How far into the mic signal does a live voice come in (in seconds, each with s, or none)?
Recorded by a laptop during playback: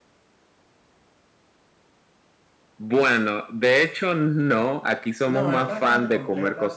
5.2 s